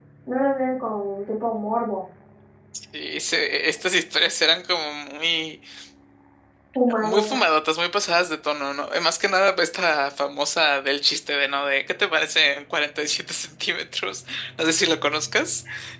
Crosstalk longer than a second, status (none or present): none